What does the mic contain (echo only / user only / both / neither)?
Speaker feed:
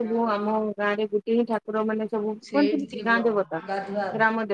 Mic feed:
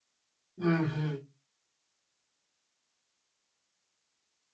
user only